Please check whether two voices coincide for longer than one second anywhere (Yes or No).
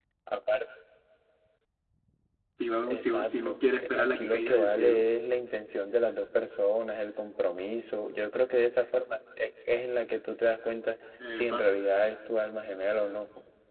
Yes